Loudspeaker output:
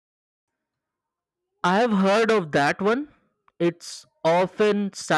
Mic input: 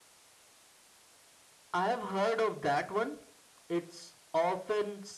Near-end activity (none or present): none